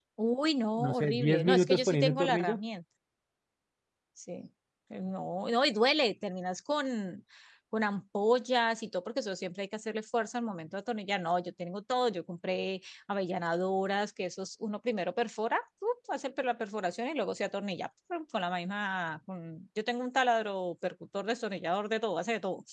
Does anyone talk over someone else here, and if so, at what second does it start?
1 s

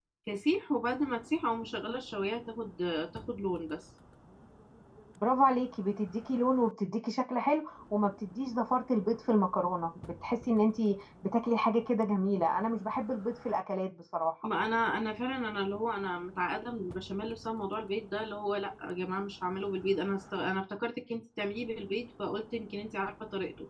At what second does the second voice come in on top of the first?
none

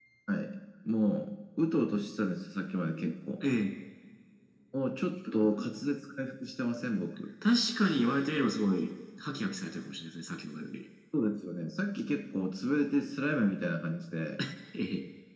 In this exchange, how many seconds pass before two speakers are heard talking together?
none

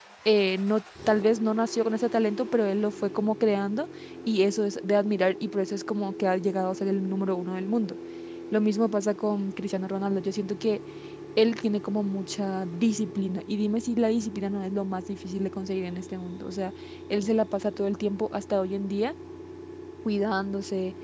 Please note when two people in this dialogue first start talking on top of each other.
none

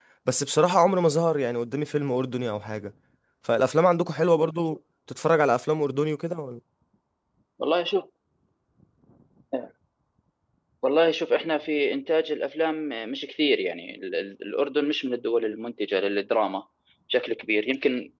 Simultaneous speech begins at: none

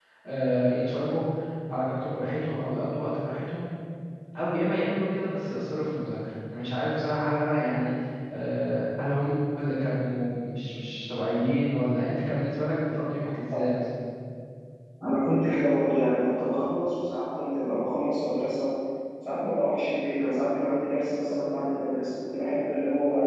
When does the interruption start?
none

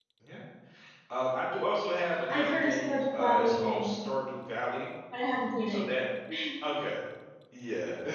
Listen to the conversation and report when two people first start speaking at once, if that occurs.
2 s

